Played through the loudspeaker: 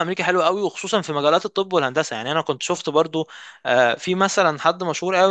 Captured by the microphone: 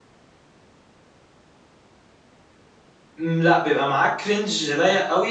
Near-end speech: present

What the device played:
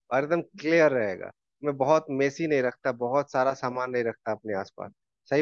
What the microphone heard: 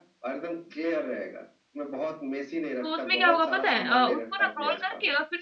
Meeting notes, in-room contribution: present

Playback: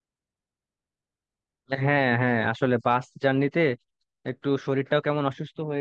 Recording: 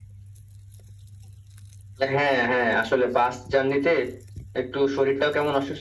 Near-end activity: none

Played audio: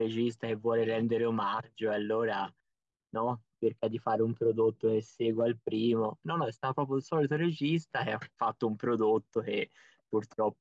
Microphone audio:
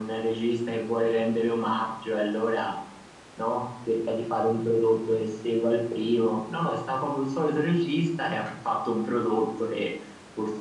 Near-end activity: none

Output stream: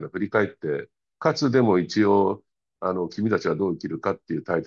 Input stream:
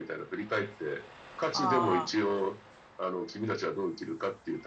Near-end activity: present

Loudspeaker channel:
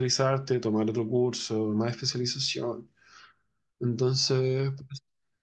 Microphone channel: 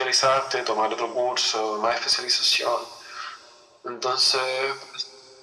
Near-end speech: none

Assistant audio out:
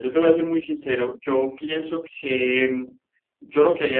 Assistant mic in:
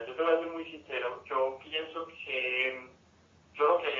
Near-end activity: none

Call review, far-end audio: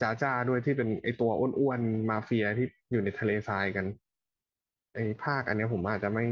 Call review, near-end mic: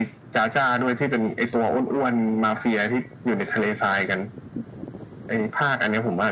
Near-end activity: none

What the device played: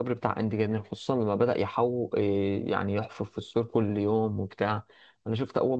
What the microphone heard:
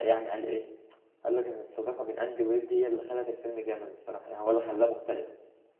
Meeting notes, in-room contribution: present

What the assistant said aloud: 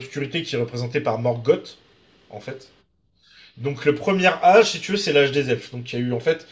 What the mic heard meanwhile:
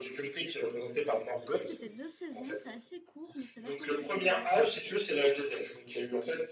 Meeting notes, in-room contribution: present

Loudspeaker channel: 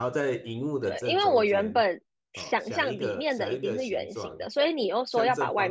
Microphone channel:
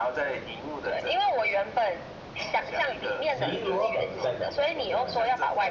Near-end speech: present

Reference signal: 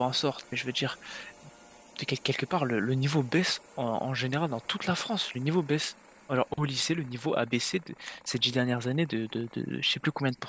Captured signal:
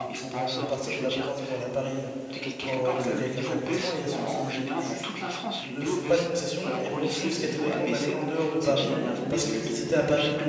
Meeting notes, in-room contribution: present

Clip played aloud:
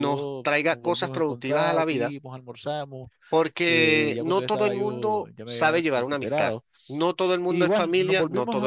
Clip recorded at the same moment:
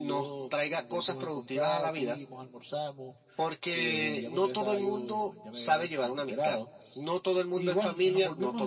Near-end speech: none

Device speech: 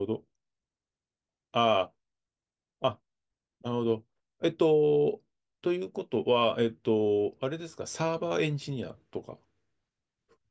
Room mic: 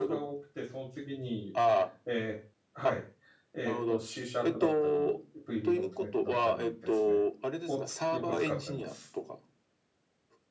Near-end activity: present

